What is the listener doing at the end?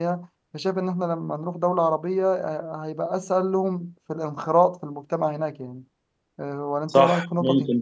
taking over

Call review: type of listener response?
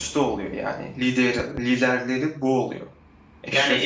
taking over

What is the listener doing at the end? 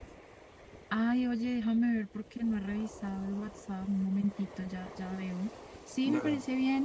listening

